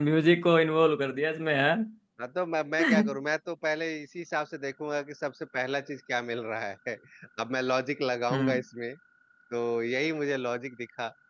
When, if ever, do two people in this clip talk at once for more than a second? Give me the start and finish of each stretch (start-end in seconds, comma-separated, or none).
none